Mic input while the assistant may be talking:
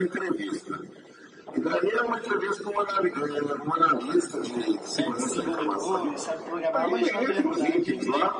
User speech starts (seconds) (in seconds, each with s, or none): 5.0 s